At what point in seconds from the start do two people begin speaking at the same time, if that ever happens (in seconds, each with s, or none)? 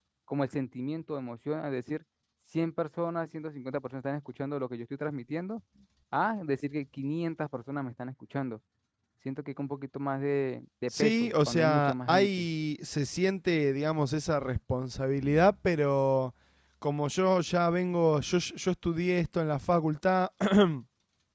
10.9 s